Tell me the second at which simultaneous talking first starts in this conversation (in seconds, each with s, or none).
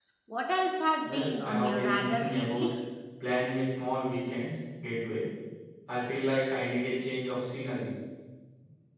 1.1 s